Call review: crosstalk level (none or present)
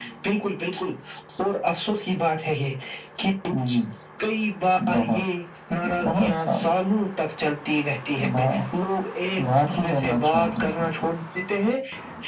present